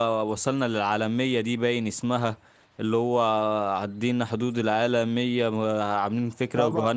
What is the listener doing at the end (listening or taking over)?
taking over